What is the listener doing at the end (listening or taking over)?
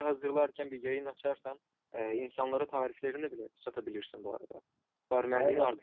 taking over